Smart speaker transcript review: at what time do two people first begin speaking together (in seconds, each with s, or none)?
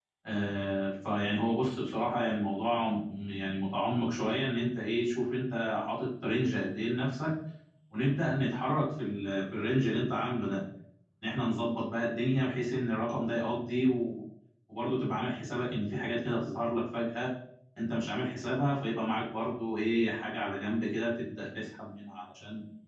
none